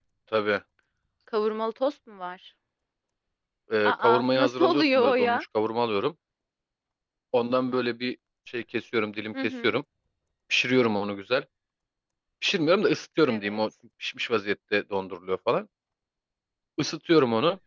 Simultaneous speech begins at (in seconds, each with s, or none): 3.8 s